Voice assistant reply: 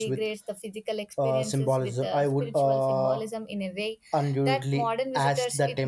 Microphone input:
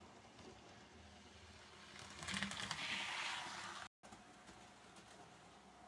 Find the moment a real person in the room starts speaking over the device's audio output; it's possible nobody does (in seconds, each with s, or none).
none